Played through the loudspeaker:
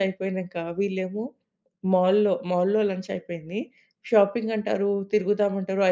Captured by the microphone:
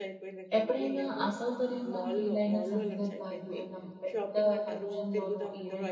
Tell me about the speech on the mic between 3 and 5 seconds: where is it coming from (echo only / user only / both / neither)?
both